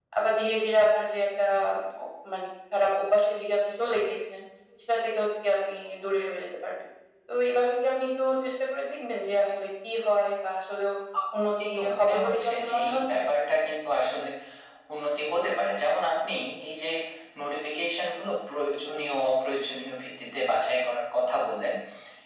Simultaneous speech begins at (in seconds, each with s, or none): 11.6 s